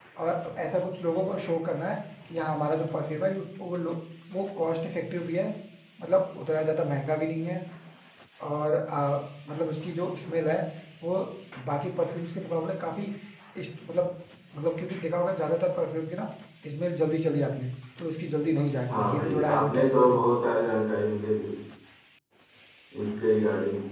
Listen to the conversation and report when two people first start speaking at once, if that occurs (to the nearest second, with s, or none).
19 s